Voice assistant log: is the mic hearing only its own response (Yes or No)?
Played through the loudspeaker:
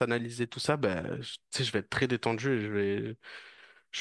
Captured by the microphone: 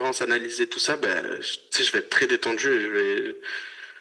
Yes